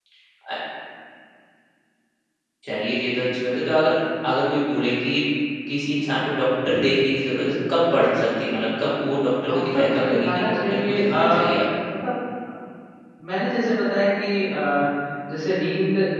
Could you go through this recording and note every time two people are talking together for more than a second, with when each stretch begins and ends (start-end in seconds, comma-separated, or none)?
9.4-11.5